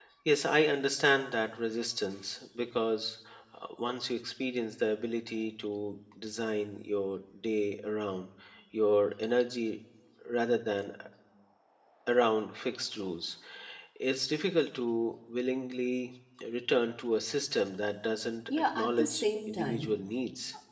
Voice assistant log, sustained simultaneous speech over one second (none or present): present